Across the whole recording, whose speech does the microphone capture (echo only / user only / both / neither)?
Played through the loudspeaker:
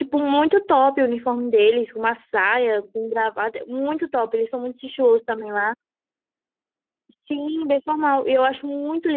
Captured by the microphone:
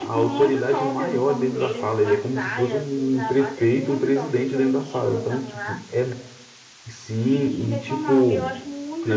both